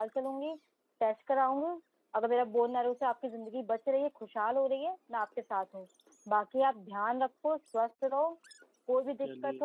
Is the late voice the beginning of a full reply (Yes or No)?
No